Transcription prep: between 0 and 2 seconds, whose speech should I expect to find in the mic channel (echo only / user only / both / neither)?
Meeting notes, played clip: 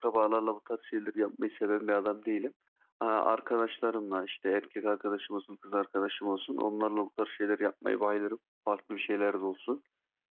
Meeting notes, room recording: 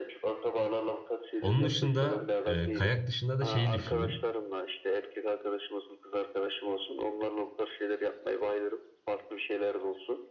both